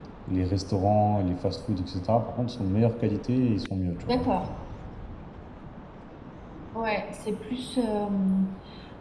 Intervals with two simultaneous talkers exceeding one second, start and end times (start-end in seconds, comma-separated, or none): none